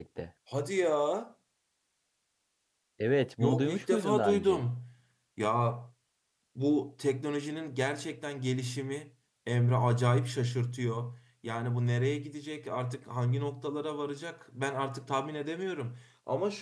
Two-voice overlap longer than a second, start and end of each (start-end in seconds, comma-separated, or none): 3.4-4.6